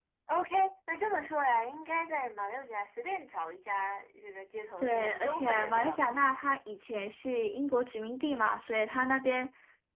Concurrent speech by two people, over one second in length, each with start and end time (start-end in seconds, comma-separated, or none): 4.8-6.4